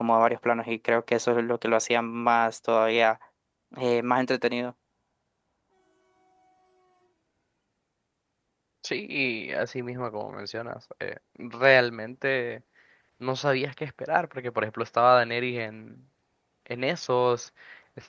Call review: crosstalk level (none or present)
none